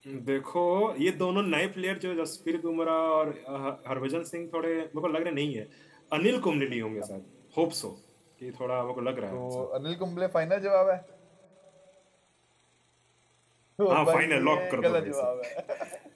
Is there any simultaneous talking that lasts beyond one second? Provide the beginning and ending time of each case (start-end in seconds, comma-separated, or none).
13.9-15.3